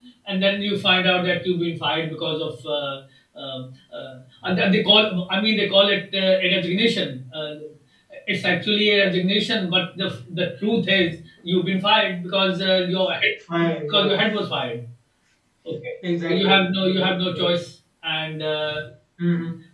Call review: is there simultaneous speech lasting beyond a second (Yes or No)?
Yes